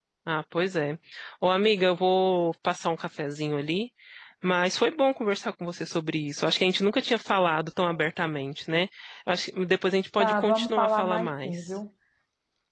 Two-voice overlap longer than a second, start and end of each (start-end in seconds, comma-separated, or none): 10.2-11.5